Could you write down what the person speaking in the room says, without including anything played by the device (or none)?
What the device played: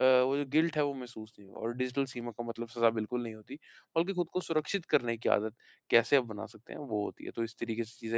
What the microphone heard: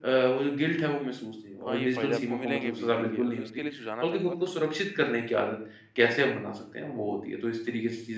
हाँ, ये फ़ायदे आपको मिलेंगे भी देखिए तो इसके लिए सुझाना चाहूँगा,